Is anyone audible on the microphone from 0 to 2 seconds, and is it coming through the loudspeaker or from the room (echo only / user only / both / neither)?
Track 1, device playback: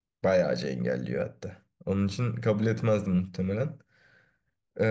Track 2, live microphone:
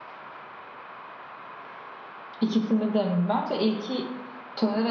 neither